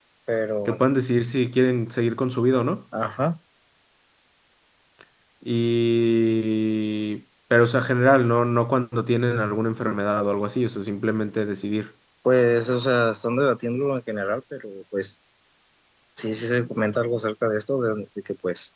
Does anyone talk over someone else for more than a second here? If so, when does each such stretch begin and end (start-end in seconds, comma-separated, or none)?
none